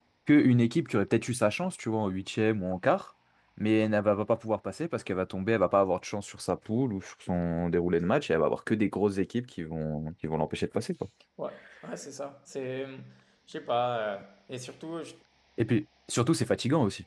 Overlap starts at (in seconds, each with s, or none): none